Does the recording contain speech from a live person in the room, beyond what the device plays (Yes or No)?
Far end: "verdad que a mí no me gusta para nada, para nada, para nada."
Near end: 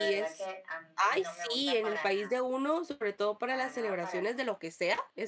Yes